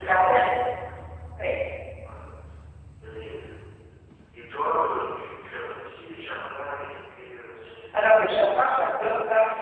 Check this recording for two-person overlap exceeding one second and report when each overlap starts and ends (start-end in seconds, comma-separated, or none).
none